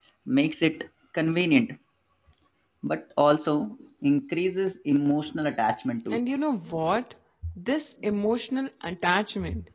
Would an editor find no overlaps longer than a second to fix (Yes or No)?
Yes